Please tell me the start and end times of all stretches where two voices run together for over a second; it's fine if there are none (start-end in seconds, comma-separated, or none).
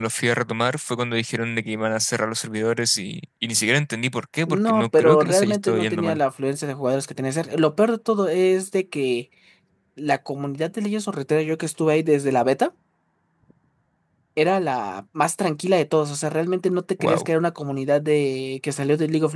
4.5-6.2